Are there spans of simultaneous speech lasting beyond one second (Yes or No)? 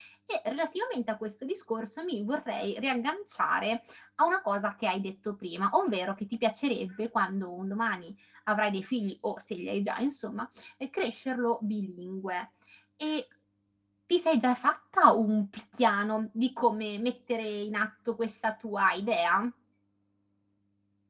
No